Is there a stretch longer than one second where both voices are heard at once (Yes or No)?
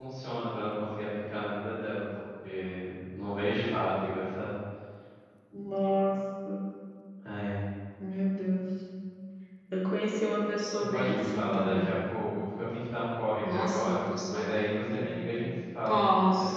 Yes